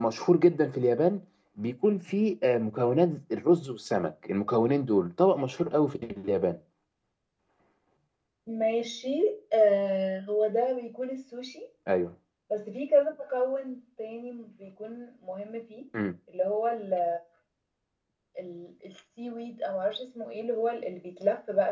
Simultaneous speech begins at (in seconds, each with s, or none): none